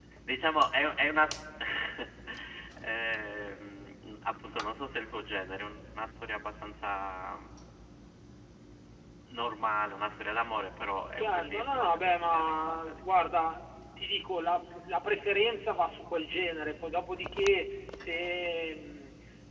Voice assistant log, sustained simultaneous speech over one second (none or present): present